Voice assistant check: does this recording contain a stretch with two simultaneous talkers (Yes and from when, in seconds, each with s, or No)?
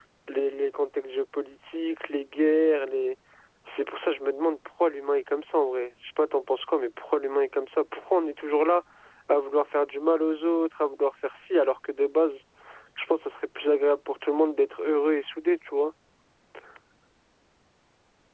No